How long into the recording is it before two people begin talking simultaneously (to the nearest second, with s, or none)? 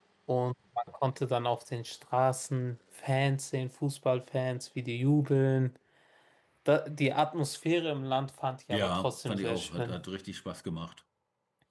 9 s